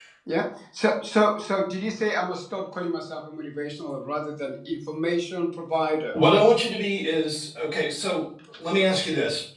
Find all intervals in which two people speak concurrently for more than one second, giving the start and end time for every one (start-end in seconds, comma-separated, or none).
none